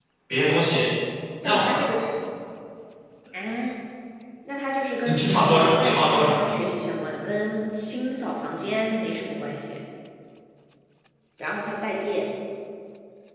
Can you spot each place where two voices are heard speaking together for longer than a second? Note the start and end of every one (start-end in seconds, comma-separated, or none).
5.0-6.4